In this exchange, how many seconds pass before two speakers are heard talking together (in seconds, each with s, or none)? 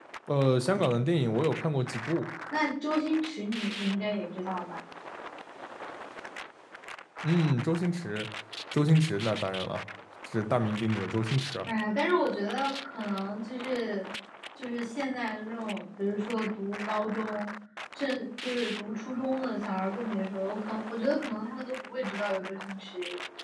none